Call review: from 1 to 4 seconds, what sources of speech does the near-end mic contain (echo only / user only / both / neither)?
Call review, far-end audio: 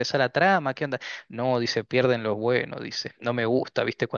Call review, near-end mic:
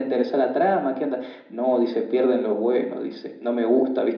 echo only